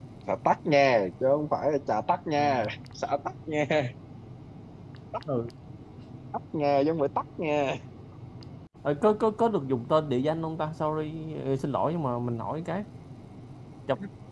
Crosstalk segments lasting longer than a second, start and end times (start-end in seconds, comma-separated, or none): none